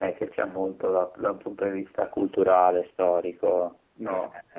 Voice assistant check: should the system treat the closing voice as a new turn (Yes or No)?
Yes